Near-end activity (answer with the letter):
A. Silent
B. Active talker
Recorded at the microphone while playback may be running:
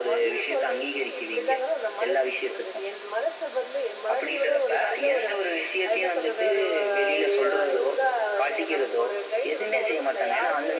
A